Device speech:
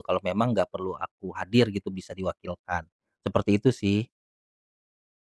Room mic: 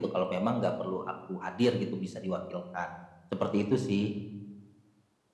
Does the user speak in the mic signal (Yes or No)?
No